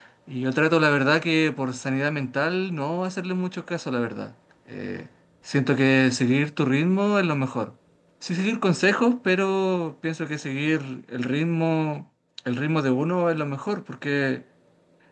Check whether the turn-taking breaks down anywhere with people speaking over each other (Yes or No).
No